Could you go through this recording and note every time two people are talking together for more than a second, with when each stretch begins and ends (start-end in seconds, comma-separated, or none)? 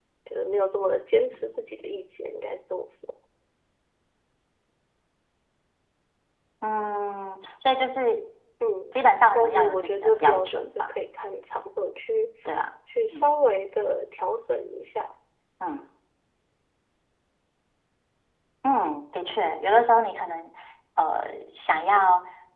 9.3-10.9